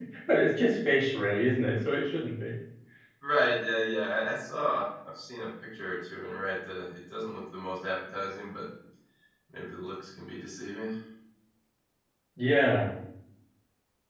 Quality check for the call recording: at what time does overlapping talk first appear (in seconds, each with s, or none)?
none